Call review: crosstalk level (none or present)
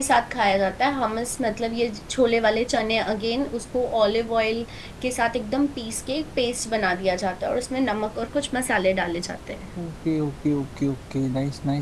none